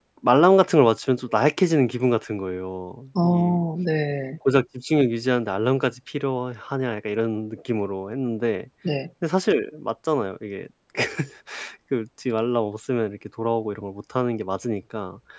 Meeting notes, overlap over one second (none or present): none